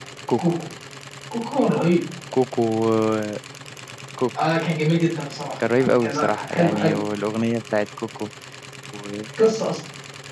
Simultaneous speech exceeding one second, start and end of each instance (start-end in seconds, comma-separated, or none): 5.8-7.0